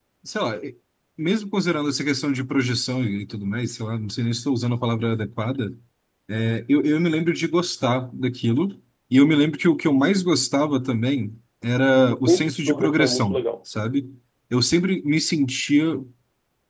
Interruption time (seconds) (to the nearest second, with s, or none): 12 s